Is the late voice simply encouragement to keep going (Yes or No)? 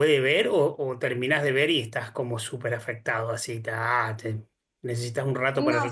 No